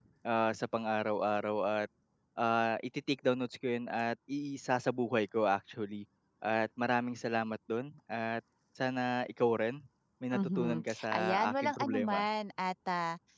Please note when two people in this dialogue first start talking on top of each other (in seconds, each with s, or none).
10.3 s